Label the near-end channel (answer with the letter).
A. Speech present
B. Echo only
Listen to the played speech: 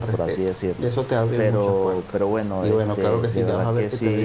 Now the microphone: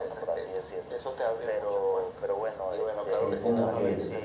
A